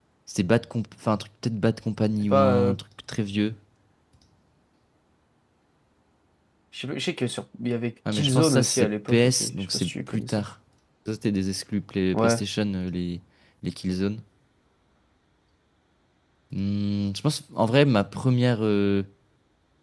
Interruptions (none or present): present